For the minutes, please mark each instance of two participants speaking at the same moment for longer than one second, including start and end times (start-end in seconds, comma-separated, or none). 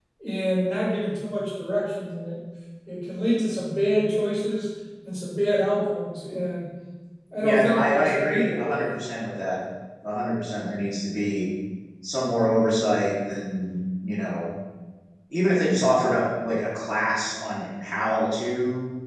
7.4-8.9